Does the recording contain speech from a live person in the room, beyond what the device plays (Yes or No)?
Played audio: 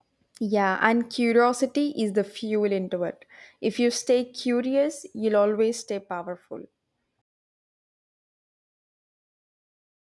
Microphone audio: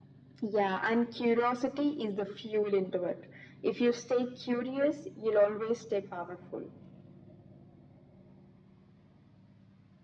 No